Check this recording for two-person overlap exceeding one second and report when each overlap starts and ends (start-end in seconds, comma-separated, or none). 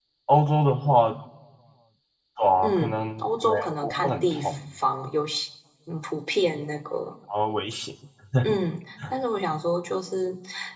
2.6-4.6